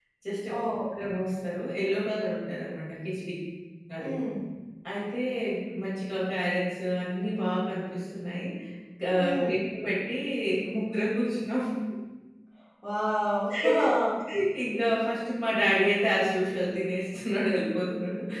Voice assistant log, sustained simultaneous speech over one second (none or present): none